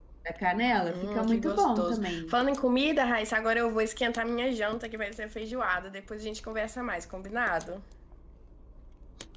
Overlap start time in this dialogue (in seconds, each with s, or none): 0.9 s